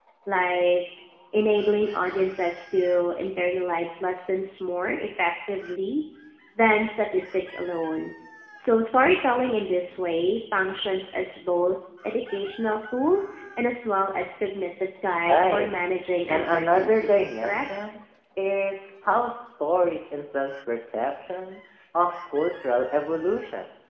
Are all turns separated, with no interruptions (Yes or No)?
No